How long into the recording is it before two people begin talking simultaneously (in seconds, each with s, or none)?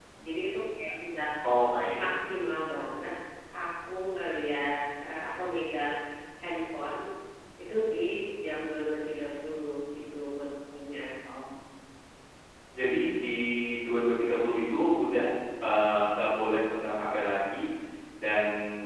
none